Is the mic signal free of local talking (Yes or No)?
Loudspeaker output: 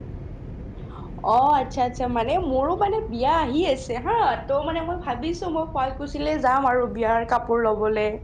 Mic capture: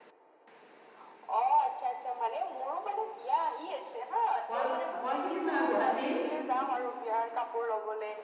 No